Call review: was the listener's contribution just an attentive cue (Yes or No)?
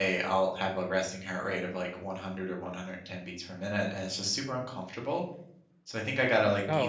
Yes